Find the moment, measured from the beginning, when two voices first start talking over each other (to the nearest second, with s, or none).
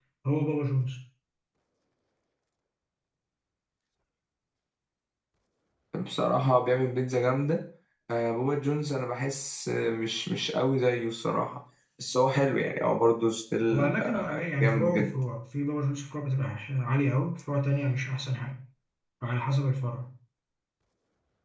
14 s